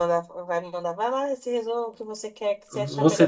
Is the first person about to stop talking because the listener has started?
Yes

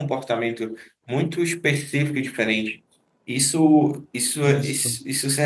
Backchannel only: Yes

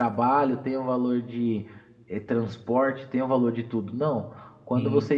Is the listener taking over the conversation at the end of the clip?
No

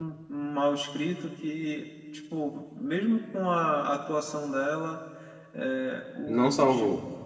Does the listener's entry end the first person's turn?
No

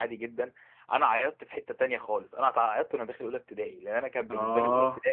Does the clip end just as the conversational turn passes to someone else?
No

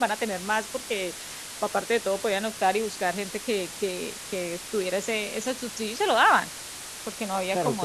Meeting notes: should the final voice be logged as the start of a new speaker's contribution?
Yes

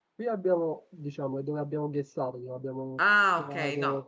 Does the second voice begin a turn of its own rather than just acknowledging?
Yes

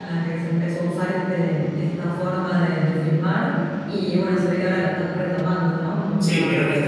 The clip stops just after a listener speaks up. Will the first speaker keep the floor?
No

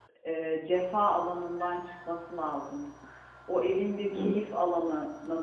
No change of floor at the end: Yes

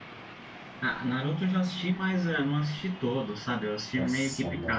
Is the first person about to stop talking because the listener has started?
Yes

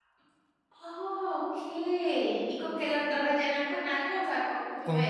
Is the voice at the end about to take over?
Yes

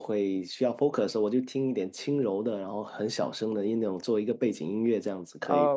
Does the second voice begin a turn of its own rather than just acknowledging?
Yes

